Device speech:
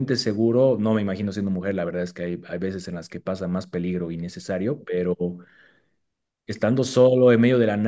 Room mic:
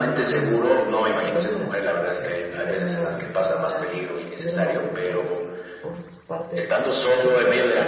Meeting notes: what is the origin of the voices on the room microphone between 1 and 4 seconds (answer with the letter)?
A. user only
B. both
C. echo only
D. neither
B